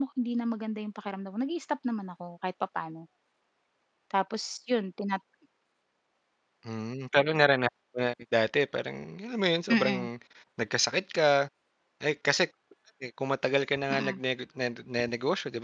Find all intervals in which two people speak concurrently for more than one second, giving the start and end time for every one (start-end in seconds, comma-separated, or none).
none